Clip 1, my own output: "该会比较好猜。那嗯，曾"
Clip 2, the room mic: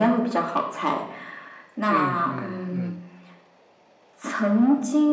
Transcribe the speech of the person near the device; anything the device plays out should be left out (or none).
嗯嗯嗯，